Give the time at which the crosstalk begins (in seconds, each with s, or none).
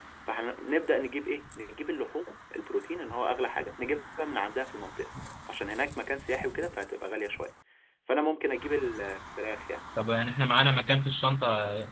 none